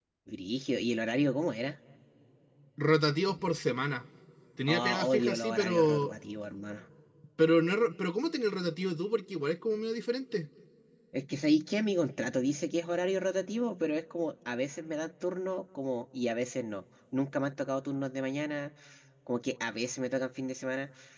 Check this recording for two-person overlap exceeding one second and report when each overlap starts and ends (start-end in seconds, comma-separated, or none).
4.7-6.1